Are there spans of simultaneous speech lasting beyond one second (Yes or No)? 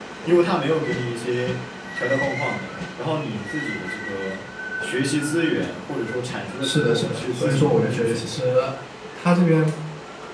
Yes